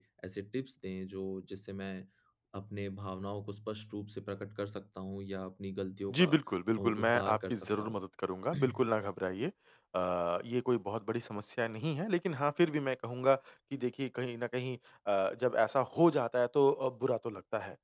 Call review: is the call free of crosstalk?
No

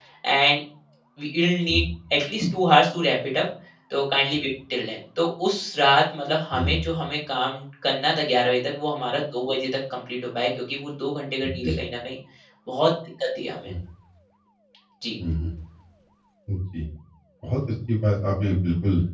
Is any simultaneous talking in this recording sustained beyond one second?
No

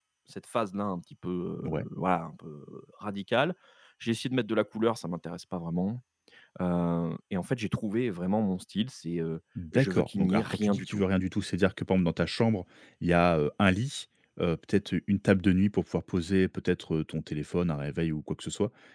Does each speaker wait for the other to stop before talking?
No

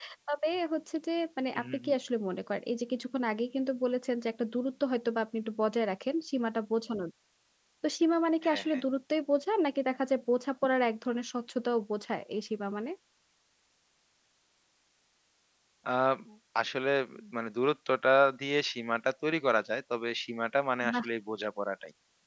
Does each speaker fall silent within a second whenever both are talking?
Yes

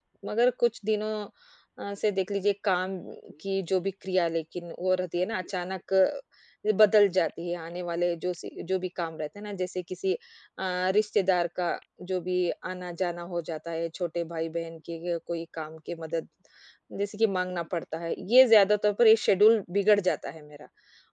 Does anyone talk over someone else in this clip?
No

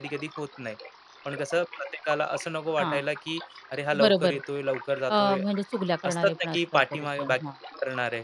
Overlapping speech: Yes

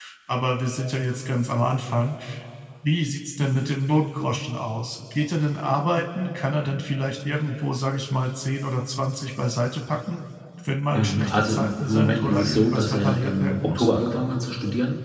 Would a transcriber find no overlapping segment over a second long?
No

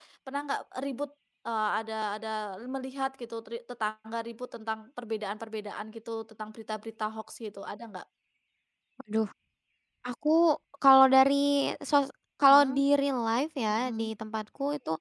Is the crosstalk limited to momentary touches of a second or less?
Yes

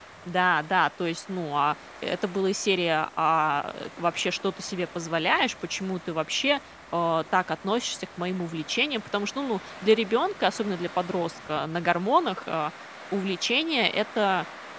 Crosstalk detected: No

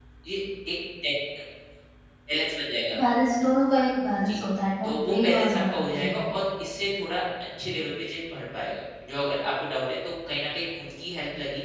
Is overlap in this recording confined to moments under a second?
No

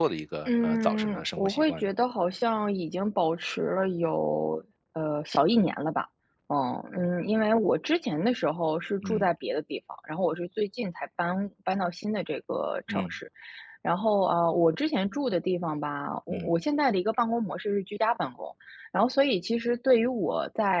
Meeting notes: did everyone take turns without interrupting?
No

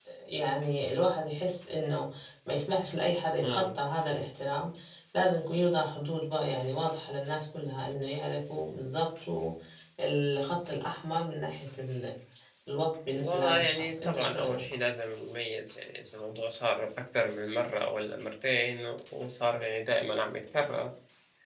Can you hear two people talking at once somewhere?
Yes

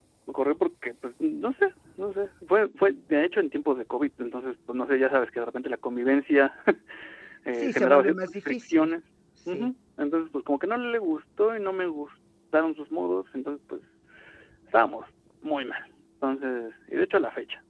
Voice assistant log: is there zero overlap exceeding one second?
No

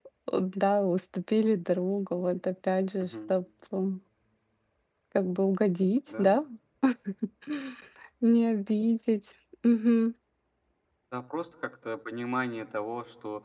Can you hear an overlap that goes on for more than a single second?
No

